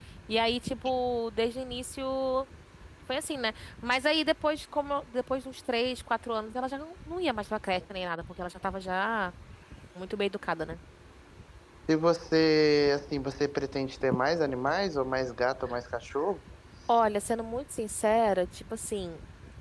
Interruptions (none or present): none